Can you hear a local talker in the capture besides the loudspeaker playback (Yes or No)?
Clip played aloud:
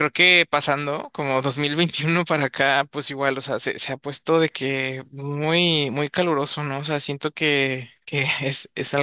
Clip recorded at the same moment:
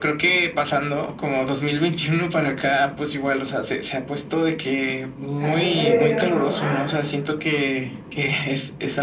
Yes